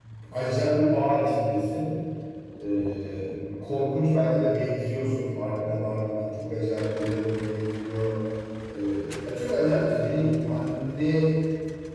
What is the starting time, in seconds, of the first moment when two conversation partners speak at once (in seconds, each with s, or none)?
none